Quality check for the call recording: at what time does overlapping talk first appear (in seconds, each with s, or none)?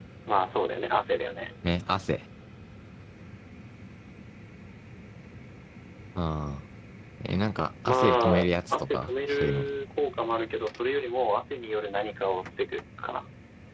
7.8 s